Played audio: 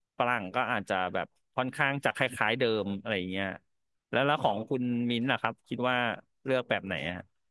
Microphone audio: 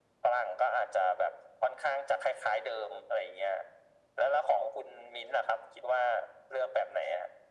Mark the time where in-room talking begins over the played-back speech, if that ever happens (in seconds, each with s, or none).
none